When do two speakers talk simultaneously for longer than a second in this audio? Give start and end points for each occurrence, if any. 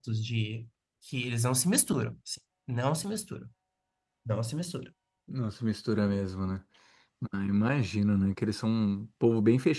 none

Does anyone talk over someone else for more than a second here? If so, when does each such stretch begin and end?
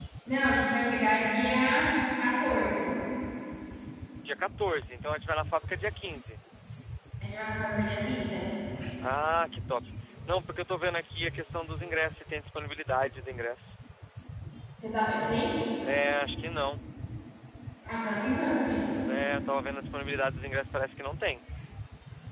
none

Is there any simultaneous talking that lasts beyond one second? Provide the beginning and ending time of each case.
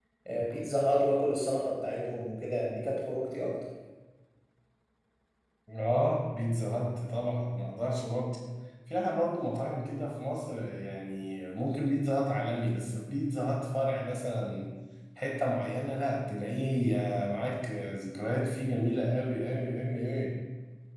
none

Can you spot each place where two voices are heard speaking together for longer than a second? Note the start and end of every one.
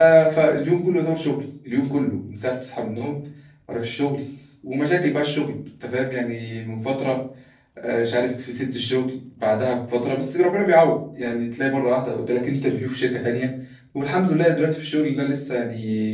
none

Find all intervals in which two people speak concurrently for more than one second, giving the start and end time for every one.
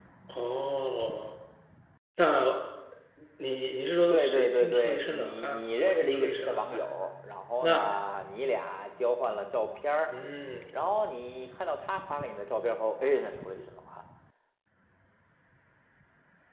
4.1-6.8

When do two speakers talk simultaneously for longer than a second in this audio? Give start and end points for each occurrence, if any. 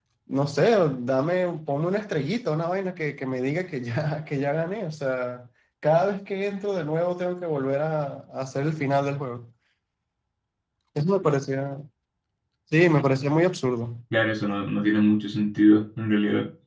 none

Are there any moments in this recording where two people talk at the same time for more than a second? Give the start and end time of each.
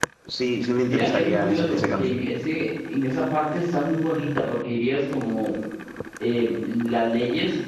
0.9-2.1

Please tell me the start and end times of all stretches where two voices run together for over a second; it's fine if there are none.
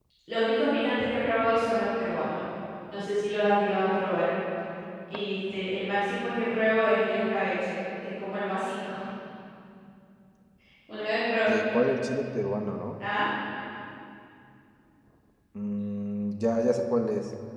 none

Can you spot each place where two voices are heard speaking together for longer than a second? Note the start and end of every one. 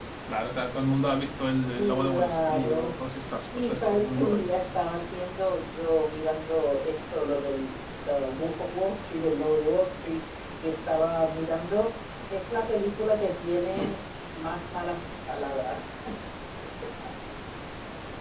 1.7-3.0, 3.5-4.8

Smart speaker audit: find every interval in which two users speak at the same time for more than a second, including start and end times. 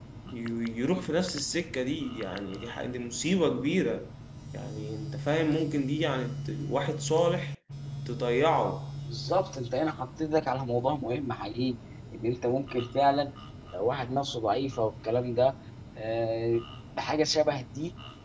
none

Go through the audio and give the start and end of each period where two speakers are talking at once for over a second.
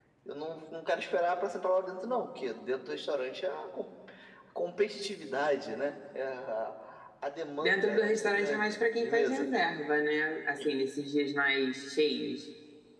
7.6-9.5

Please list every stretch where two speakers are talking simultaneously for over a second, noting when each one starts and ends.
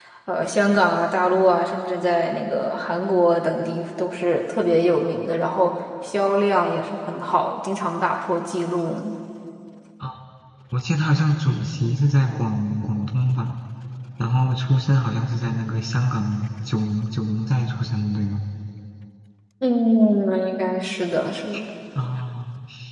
none

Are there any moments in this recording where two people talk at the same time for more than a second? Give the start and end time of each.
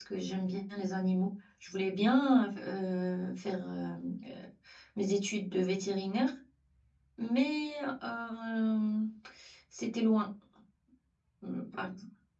none

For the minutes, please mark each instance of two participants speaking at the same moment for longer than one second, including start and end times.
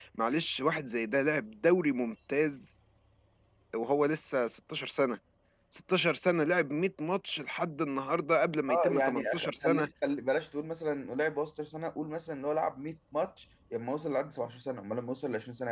8.7-9.9

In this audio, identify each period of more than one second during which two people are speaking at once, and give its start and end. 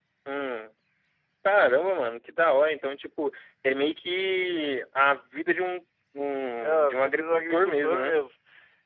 6.6-8.2

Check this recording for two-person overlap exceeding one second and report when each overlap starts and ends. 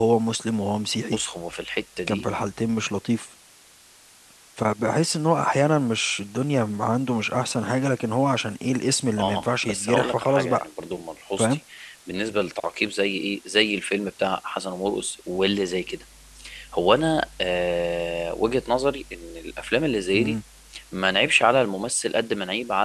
9.2-10.6

